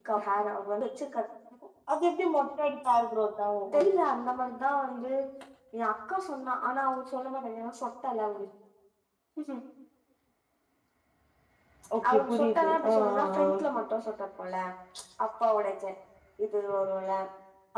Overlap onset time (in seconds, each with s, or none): 12.1 s